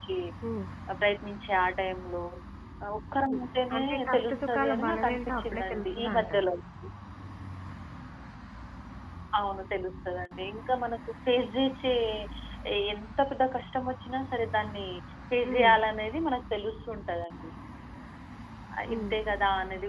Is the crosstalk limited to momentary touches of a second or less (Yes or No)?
No